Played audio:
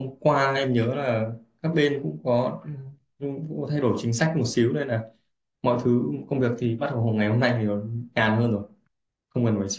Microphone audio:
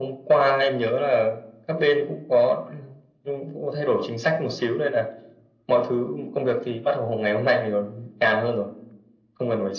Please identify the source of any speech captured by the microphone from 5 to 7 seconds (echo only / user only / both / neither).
echo only